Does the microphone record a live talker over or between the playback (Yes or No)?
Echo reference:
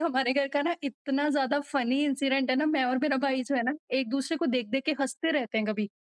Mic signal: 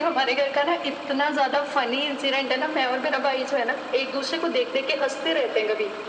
No